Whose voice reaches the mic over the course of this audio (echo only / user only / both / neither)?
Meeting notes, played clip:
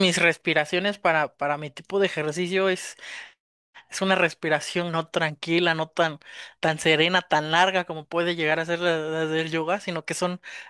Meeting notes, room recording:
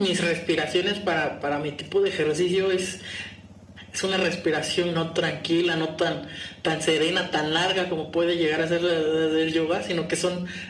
echo only